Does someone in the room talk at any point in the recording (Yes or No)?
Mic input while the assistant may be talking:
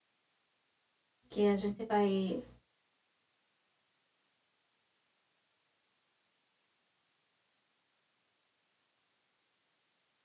Yes